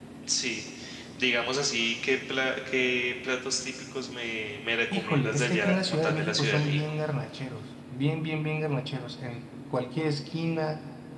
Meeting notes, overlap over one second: present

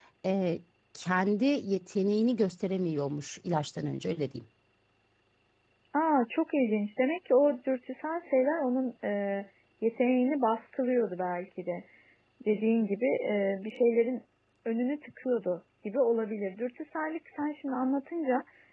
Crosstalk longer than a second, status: none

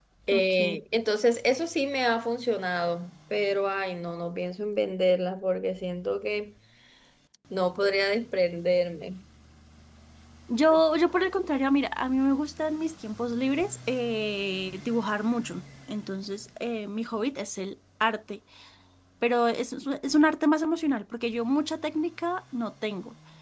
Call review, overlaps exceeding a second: none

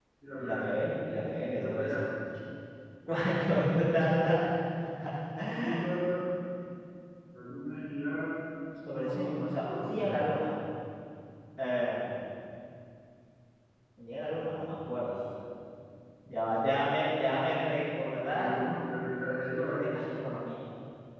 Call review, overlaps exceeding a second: present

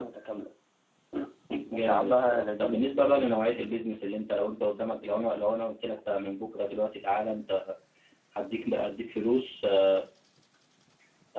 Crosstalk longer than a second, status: present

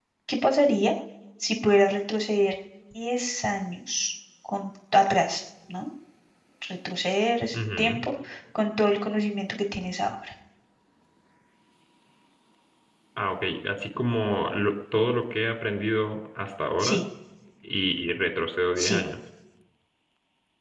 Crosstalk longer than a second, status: none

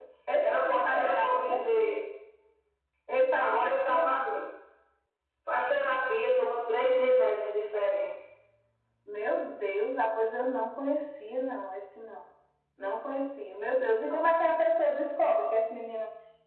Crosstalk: present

